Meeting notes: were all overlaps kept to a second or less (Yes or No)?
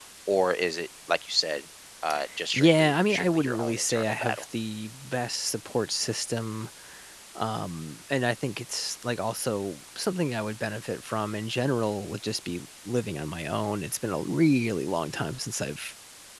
No